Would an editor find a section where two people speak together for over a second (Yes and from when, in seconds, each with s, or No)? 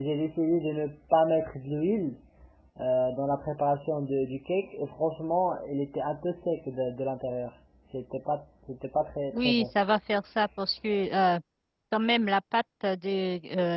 No